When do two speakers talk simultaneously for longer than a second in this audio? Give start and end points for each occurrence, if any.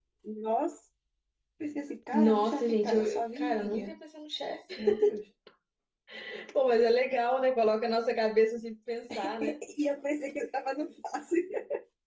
2.1-4.0

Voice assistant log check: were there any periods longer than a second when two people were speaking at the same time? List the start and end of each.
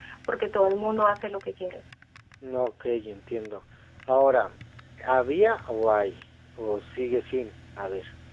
none

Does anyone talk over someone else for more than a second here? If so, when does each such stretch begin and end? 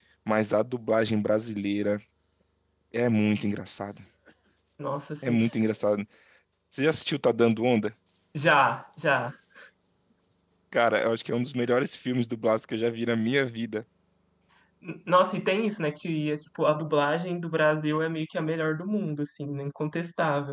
none

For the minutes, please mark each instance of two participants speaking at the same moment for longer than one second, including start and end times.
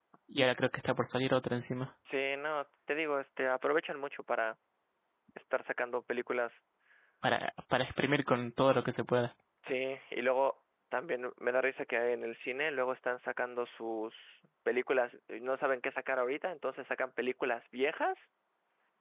none

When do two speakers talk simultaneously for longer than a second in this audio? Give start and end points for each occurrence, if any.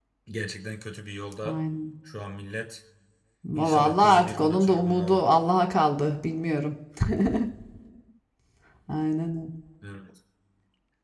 3.5-5.2

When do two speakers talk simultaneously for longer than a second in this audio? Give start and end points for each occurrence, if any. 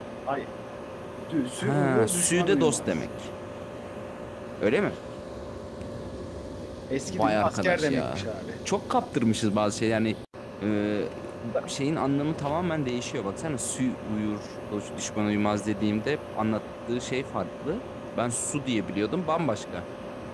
1.6-2.9, 7.1-8.3

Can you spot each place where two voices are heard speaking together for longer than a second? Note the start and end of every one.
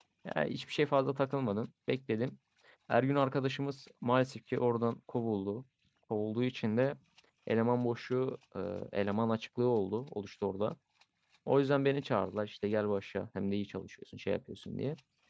none

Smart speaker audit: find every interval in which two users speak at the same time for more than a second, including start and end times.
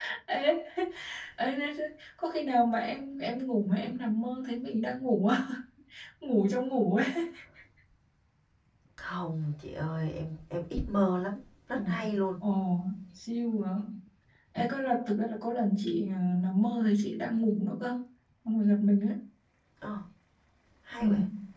none

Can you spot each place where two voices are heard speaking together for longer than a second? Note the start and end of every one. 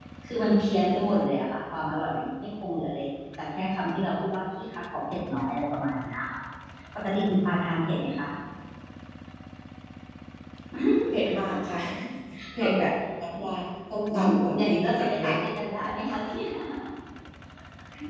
14.1-15.3

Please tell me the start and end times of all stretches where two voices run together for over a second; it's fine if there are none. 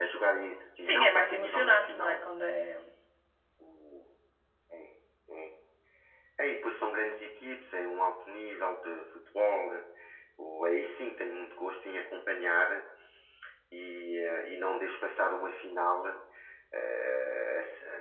0.8-2.3

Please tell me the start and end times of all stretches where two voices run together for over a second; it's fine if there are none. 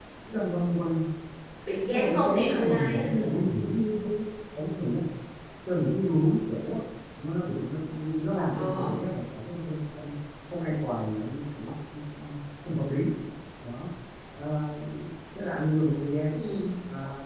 1.9-3.3

